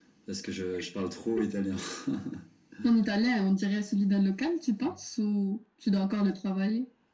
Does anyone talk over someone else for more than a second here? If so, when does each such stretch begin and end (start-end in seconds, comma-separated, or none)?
none